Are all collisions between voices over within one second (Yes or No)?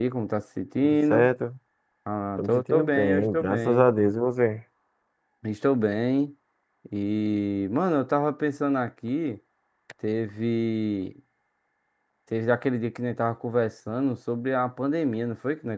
No